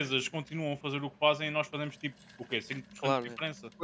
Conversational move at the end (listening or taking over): taking over